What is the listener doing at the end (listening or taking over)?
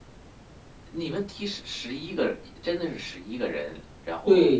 taking over